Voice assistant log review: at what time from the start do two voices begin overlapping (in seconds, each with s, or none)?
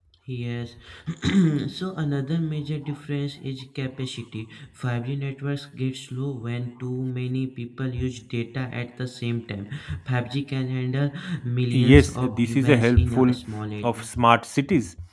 11.7 s